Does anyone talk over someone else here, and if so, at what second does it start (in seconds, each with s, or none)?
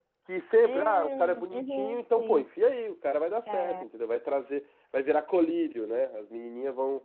0.7 s